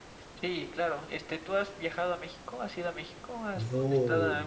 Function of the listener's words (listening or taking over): taking over